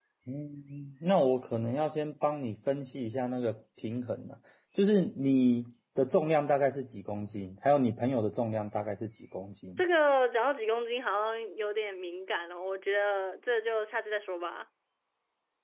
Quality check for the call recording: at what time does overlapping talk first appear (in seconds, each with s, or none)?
none